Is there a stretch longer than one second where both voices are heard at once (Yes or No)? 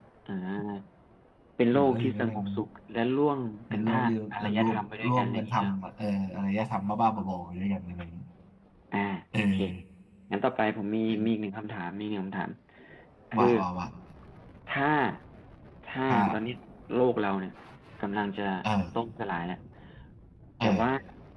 Yes